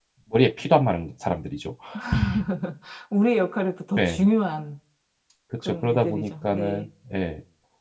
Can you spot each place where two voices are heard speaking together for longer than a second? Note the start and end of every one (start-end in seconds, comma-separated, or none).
5.6-6.9